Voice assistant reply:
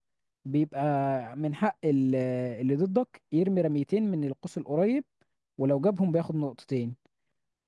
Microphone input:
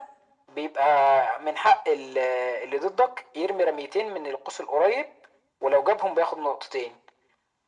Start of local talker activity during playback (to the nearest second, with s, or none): none